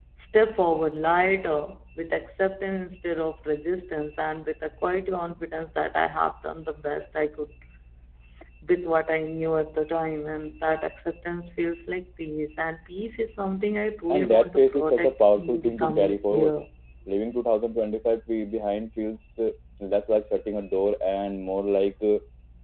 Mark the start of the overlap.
14.1 s

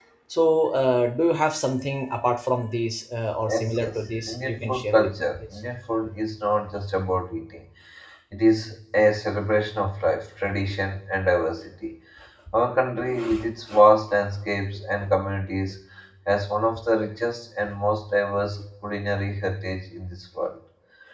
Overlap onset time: 3.5 s

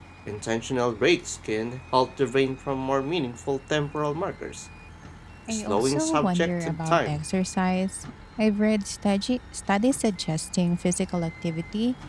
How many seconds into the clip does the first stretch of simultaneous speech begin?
5.5 s

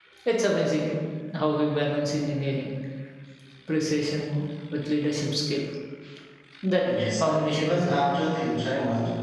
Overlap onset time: 6.8 s

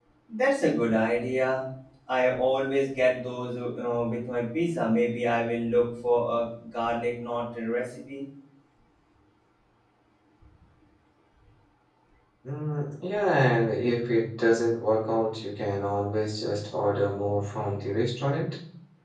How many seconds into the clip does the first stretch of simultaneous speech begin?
none

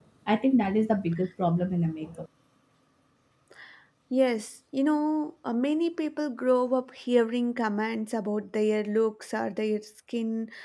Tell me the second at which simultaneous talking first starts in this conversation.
none

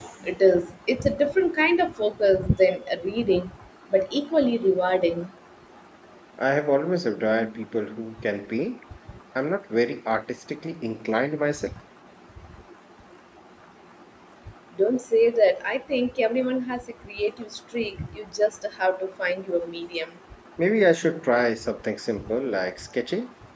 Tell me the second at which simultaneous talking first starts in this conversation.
none

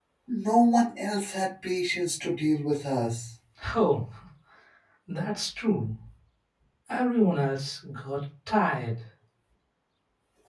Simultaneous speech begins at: none

